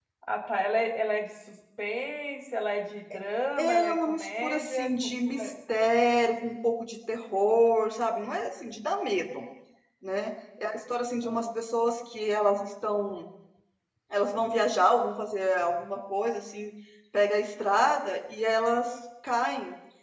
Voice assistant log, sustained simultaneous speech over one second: present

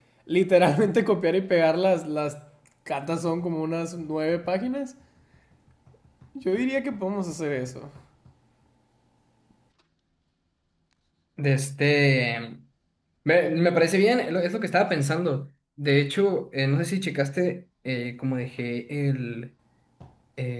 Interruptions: none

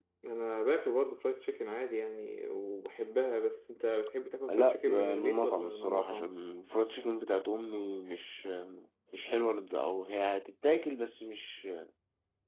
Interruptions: present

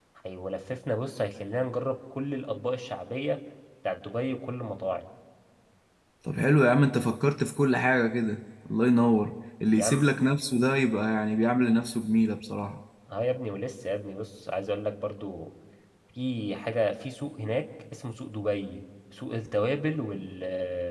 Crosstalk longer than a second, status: none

